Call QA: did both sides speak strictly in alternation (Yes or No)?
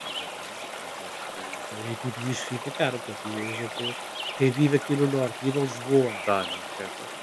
Yes